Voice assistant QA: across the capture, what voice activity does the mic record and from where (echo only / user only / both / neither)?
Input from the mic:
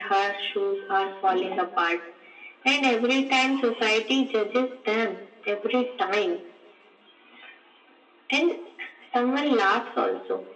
echo only